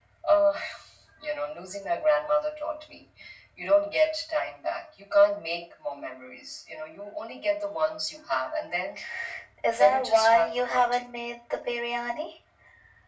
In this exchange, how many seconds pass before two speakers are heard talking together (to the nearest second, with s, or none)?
10 s